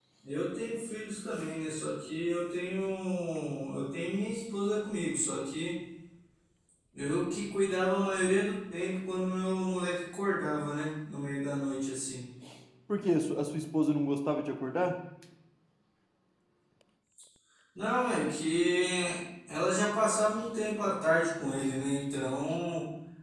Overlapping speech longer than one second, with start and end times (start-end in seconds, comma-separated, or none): none